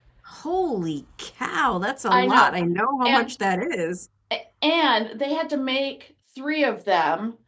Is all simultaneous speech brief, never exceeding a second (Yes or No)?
Yes